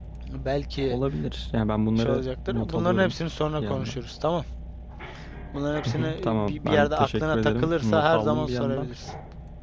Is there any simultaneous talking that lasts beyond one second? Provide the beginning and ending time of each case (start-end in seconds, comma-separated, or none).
2.0-3.2, 5.9-8.9